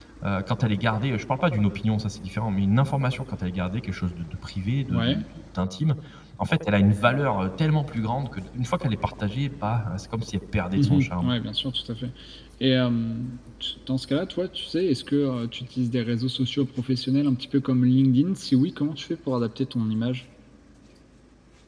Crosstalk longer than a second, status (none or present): none